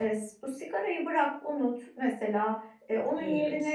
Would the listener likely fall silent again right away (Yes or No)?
Yes